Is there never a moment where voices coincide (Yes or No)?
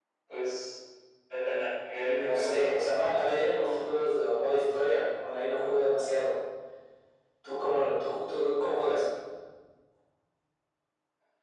No